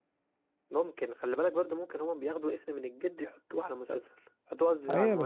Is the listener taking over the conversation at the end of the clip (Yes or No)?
Yes